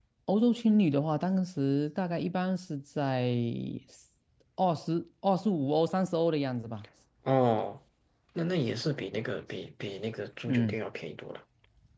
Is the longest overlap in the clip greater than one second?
No

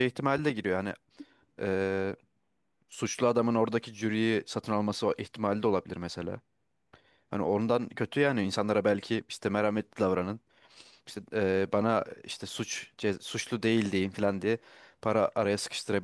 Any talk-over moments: No

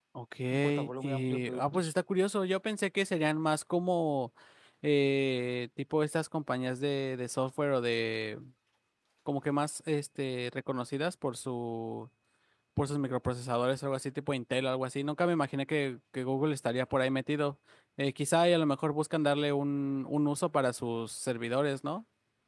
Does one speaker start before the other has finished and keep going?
Yes, from 0.5 s

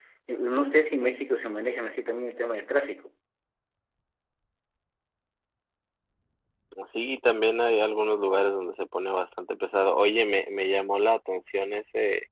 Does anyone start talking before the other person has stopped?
No

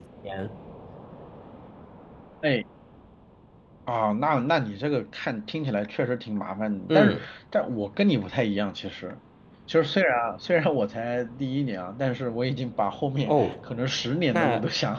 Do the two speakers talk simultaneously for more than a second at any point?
No

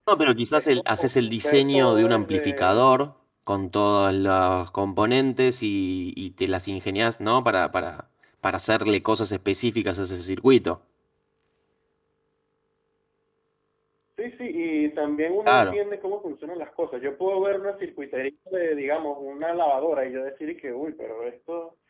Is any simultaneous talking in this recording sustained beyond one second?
Yes, from 0.5 s

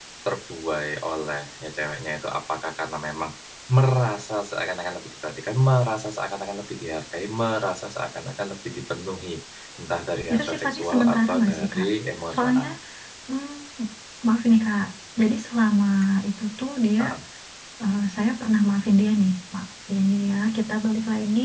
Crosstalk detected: Yes, from 10.3 s

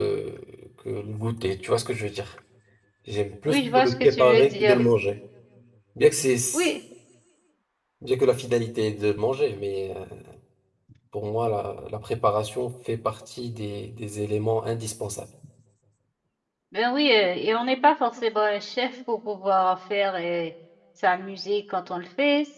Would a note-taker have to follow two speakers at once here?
Yes, from 3.5 s

